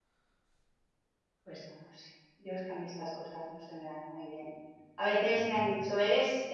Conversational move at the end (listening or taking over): listening